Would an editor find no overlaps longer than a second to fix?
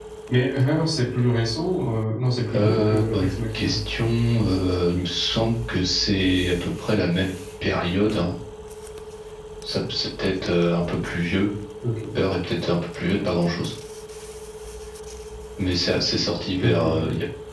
No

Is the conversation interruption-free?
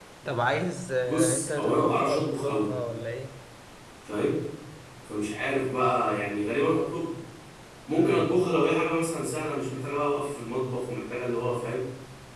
No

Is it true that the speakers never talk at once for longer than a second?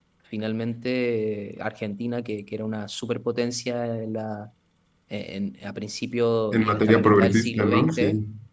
No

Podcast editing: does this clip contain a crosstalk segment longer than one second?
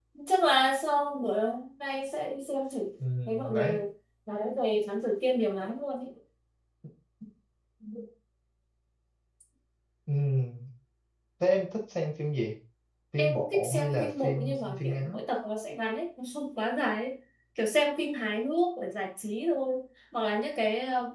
Yes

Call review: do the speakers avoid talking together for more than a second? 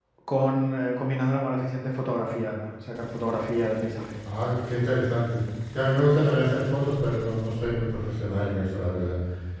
Yes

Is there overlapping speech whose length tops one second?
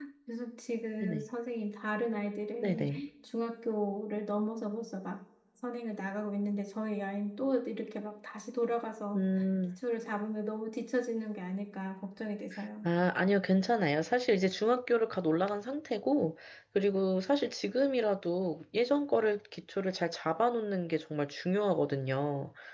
No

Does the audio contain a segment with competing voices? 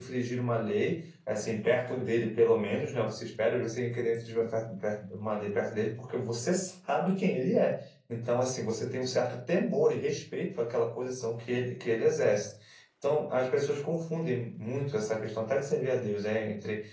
No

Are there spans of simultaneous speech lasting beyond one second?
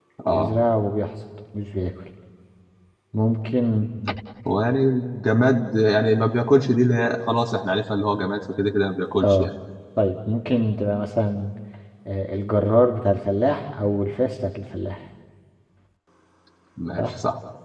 No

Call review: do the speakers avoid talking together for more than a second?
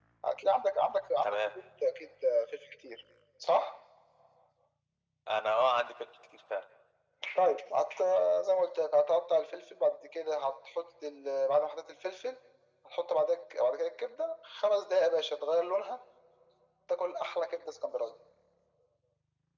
Yes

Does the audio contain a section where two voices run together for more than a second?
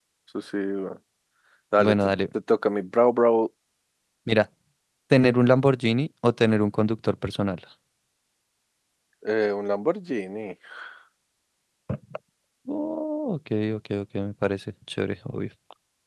No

